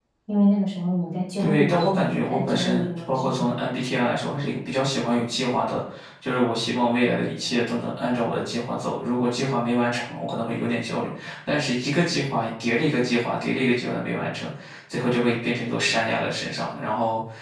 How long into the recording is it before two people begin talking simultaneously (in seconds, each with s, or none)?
1.4 s